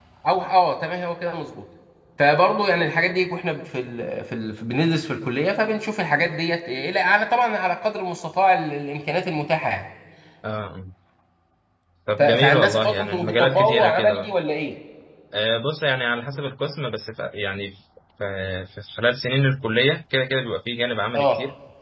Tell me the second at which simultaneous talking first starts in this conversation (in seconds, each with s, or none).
12.2 s